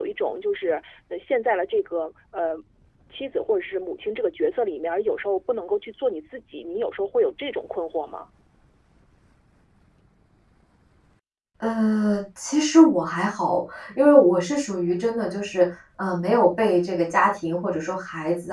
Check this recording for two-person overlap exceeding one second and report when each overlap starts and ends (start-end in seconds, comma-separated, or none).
none